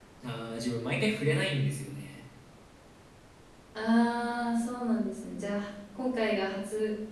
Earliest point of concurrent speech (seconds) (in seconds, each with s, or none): none